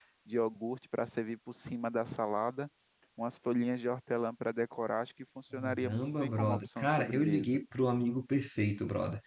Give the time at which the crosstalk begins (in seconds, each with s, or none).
5.8 s